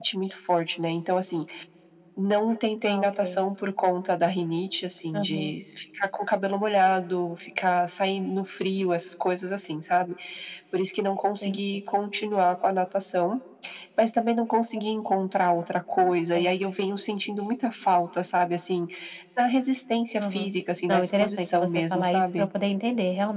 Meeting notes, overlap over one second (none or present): present